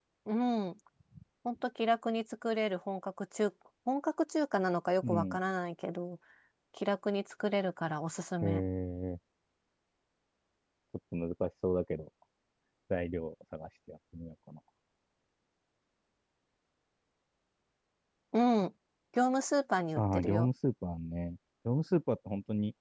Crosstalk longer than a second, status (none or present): none